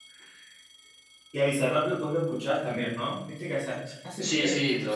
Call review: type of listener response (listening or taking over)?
taking over